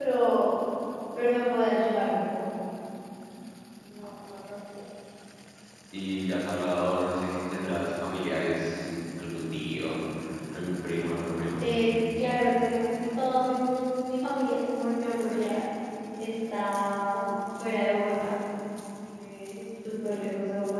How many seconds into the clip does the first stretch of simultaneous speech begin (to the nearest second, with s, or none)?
none